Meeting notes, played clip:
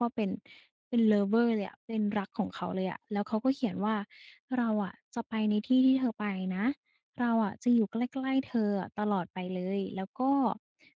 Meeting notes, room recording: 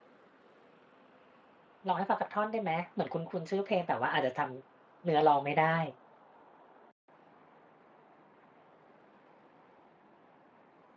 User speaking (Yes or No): Yes